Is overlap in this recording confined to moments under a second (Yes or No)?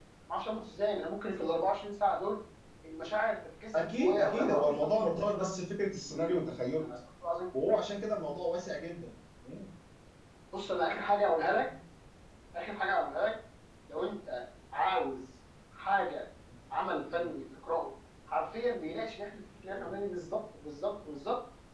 No